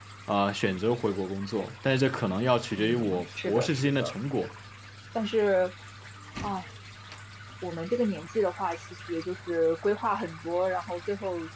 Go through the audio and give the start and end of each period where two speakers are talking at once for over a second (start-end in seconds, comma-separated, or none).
2.7-4.1